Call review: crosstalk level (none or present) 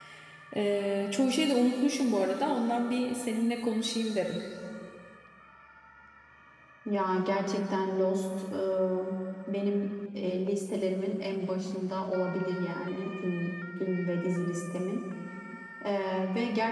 none